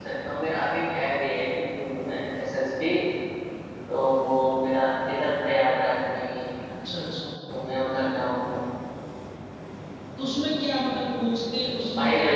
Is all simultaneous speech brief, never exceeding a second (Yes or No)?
Yes